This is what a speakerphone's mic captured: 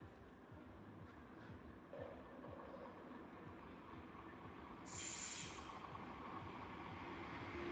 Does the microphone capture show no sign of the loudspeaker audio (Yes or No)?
Yes